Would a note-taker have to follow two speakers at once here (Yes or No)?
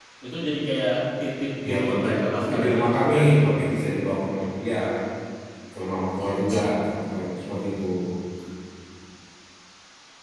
Yes